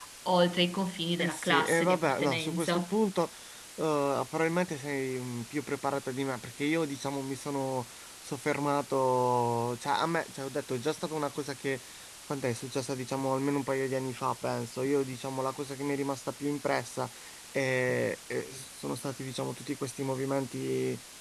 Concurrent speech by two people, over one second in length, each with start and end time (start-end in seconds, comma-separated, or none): 1.2-2.9